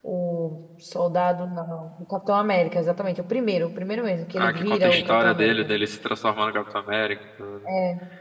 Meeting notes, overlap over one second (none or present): present